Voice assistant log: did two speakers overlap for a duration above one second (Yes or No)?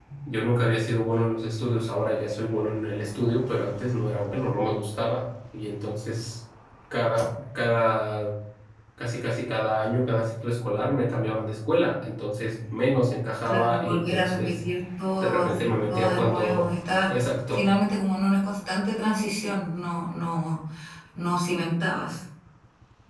Yes